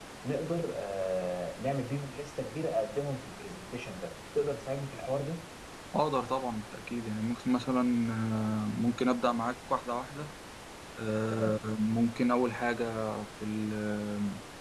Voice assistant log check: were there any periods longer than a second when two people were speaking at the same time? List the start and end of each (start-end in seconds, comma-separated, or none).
none